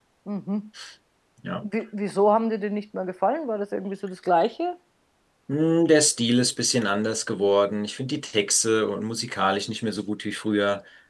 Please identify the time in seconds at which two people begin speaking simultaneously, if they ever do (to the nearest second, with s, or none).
none